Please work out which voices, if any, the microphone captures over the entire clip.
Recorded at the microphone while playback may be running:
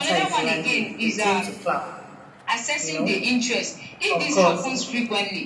both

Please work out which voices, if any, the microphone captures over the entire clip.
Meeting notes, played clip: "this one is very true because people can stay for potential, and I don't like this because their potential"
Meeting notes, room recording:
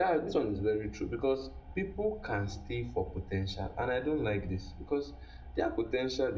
echo only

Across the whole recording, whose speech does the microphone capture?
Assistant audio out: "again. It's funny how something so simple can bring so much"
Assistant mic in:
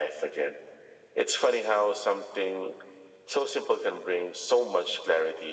echo only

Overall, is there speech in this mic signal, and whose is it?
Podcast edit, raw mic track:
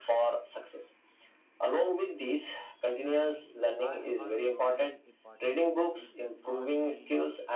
both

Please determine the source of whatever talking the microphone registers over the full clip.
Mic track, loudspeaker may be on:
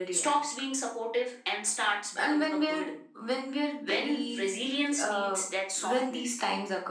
echo only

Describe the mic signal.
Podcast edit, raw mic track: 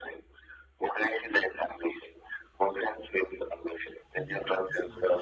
both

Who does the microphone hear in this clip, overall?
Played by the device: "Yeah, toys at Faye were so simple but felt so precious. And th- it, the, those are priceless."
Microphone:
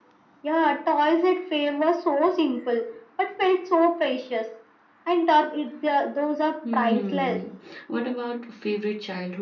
both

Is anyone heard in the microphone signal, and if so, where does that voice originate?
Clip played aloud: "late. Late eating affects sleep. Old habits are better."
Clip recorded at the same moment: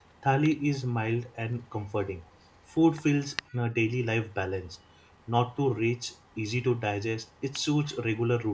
user only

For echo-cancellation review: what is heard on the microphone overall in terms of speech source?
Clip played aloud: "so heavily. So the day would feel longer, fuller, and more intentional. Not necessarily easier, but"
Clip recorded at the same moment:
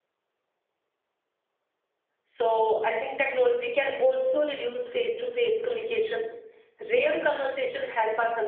user only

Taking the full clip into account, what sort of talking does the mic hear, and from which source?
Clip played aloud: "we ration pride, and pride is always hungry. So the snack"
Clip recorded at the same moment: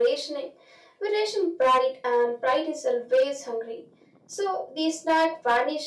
echo only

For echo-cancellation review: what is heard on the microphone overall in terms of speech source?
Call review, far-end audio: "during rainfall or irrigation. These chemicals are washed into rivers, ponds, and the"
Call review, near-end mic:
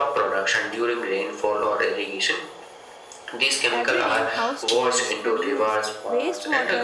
both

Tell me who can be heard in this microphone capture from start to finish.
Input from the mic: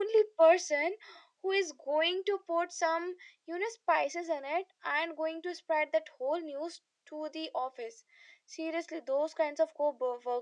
echo only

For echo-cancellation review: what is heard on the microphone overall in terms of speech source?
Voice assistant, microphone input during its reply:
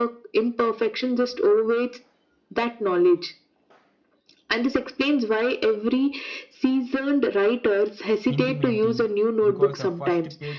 both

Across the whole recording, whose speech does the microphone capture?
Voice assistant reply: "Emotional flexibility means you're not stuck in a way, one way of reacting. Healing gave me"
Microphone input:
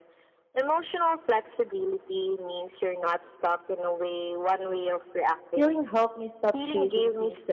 both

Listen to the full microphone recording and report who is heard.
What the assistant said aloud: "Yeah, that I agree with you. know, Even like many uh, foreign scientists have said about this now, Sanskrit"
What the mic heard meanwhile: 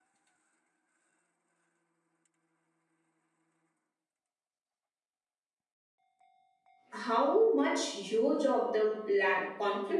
user only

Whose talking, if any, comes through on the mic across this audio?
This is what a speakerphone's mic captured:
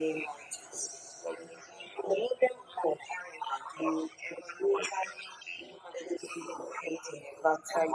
echo only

